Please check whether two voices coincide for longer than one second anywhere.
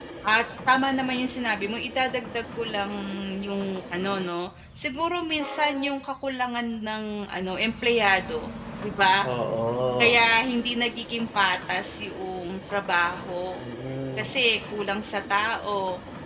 No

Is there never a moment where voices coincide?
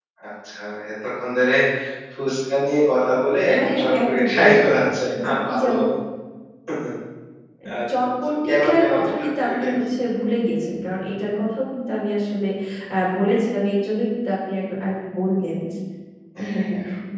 No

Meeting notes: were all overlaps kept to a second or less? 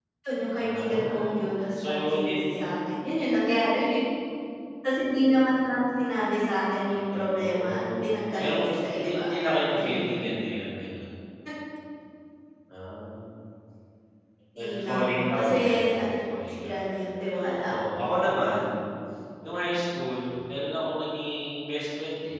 No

